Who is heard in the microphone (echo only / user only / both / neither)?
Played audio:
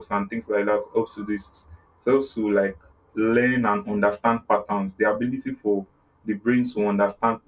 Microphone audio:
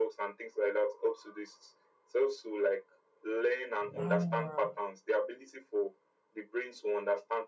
both